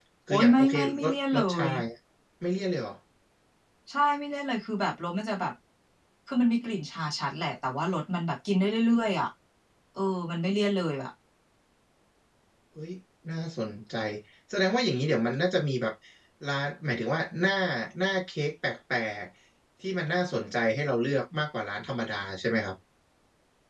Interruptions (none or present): present